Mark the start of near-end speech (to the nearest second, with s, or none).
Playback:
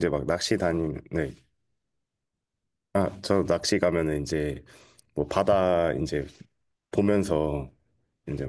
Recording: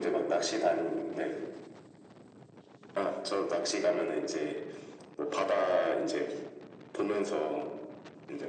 none